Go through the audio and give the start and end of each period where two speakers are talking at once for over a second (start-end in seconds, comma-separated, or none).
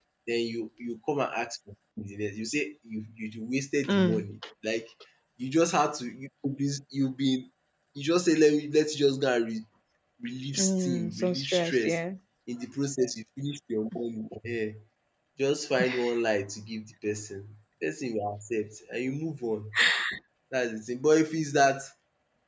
10.6-11.9